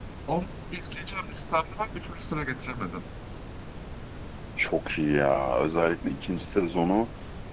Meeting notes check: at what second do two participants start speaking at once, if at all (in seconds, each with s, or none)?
none